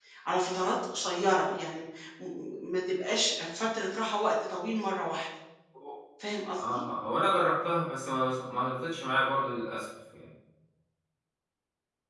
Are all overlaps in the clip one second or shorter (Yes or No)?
Yes